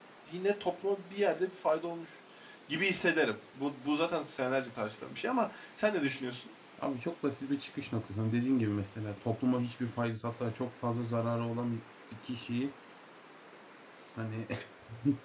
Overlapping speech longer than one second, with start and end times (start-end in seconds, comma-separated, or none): none